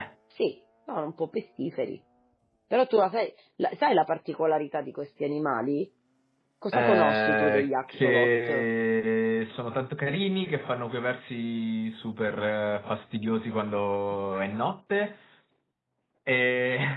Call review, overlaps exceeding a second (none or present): present